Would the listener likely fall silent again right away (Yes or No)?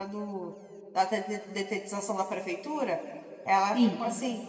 Yes